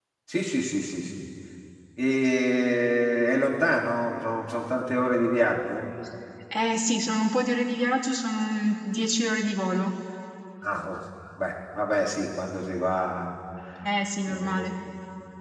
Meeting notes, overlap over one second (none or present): none